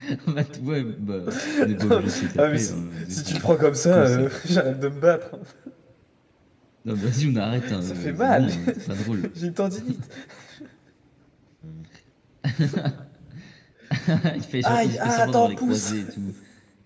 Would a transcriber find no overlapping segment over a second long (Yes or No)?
No